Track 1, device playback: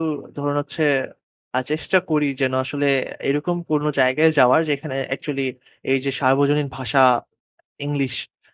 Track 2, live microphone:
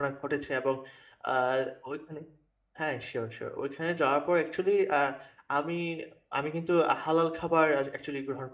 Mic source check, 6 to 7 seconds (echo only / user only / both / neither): user only